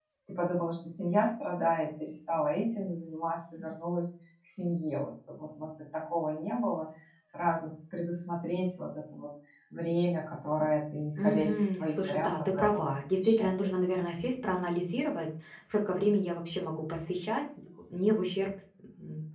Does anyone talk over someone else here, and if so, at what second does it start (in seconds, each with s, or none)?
11.2 s